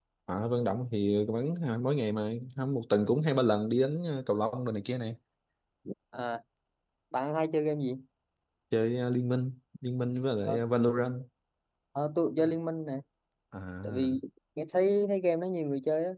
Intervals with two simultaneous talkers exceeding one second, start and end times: none

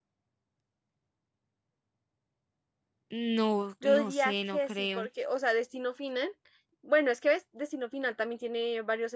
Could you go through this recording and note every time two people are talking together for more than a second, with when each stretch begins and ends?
3.8-5.1

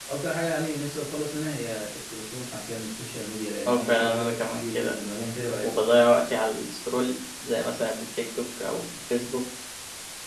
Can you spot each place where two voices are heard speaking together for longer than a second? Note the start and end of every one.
3.7-4.9

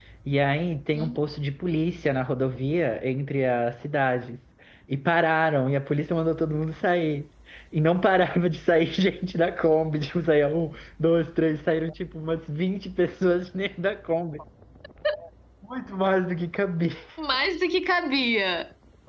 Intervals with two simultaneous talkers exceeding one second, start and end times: none

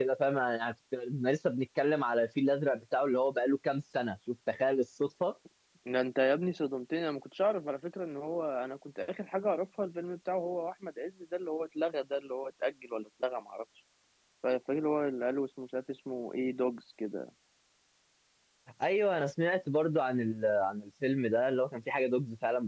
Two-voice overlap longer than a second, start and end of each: none

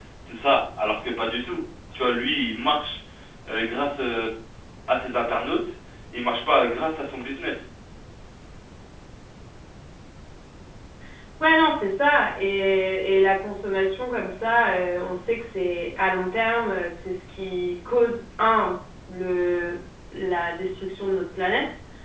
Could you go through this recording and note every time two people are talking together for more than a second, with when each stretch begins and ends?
none

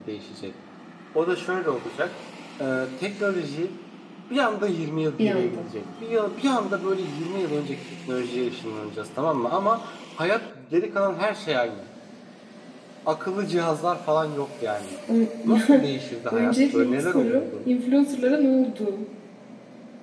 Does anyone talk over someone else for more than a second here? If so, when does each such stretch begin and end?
16.3-17.7

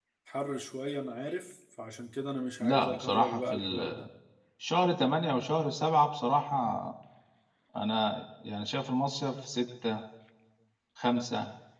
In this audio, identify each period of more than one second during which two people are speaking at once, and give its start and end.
2.6-4.1

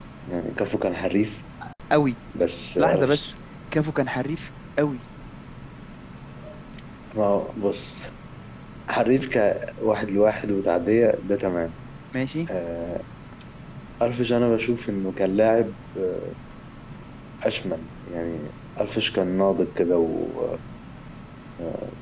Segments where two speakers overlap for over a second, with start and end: none

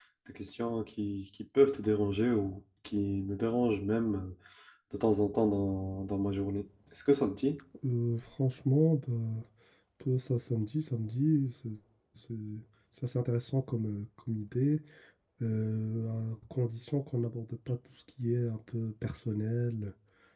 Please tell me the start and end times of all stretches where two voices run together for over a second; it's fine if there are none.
none

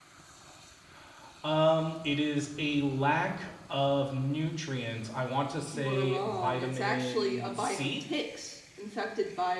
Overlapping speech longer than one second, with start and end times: 5.7-8.0

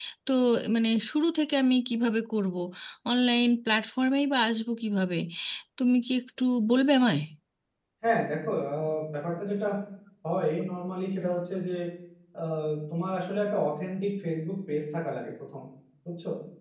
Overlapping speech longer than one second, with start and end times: none

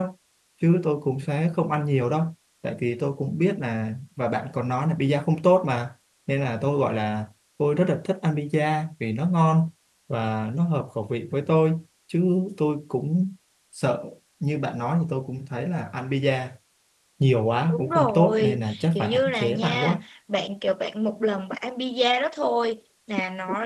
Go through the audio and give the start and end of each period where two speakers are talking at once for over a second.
17.7-20.0

